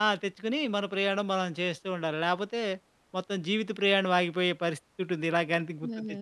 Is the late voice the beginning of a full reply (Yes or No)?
Yes